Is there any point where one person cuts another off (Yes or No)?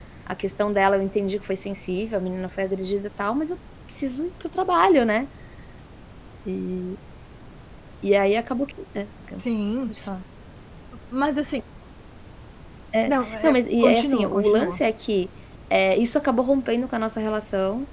Yes